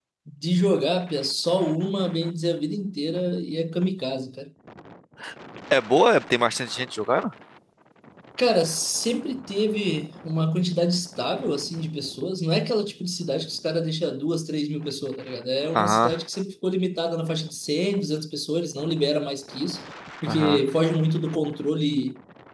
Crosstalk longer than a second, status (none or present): none